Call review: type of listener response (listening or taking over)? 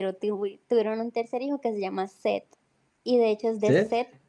listening